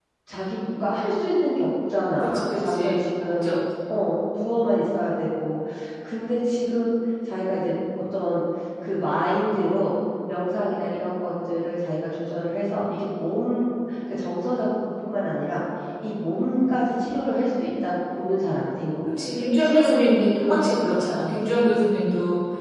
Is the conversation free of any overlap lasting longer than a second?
No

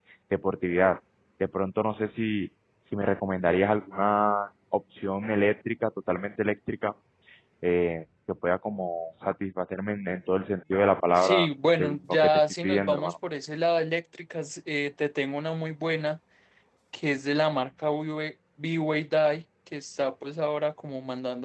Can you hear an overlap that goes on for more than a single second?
Yes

